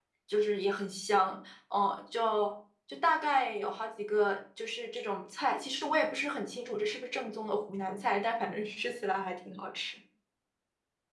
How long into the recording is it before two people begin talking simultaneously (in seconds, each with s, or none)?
none